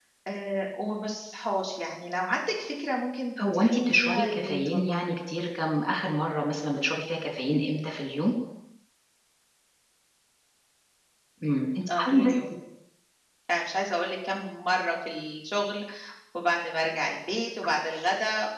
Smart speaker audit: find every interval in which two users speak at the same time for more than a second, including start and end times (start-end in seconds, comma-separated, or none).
3.4-5.1